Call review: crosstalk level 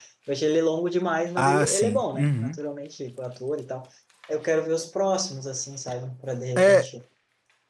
present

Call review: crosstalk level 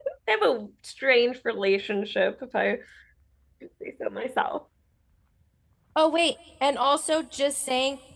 none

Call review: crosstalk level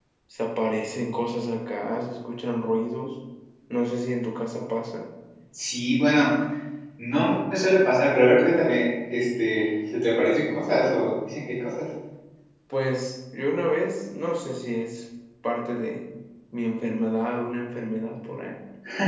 none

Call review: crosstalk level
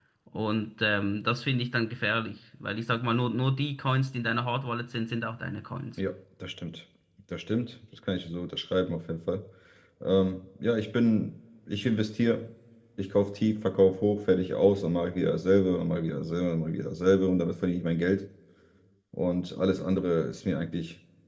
none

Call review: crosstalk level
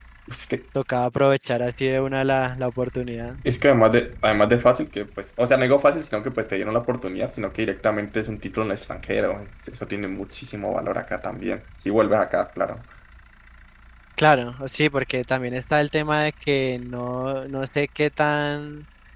none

